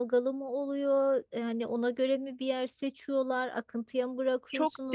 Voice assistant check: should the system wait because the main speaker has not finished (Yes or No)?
No